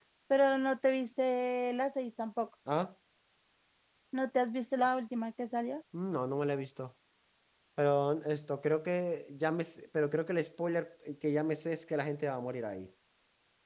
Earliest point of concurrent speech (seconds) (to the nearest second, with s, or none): none